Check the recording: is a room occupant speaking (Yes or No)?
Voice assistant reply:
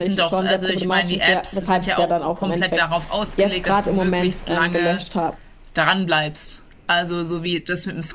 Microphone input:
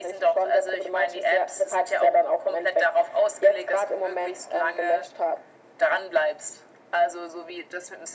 No